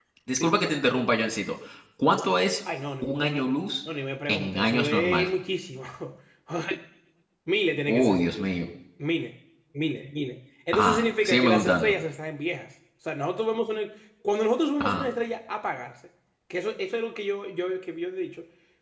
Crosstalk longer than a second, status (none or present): present